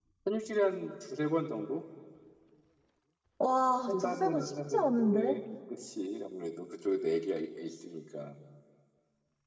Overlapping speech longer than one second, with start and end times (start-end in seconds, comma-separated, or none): 3.9-5.4